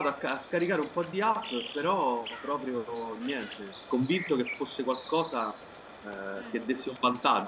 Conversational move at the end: listening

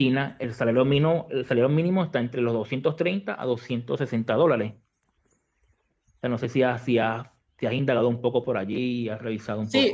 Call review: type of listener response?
taking over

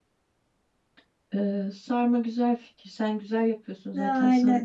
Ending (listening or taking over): listening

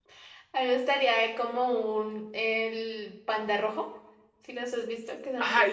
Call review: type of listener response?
taking over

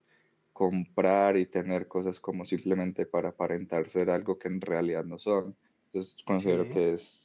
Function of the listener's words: listening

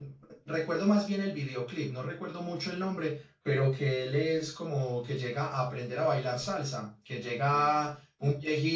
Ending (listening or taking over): listening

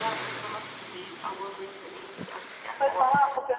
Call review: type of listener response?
taking over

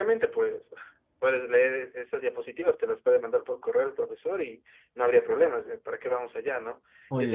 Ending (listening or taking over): listening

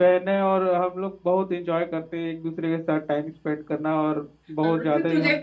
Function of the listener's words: taking over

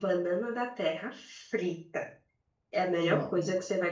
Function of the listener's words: listening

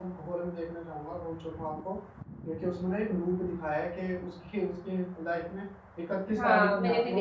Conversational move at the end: taking over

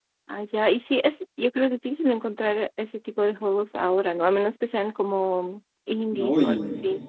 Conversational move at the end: taking over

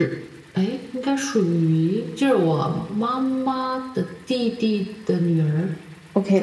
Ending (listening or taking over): taking over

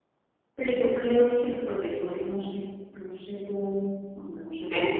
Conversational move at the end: taking over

